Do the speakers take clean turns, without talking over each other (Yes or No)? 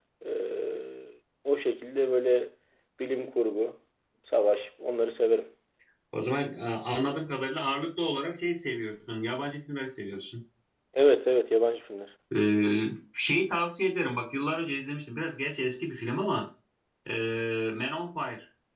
Yes